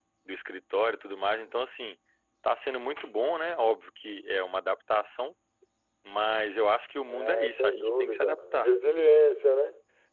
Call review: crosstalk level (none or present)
present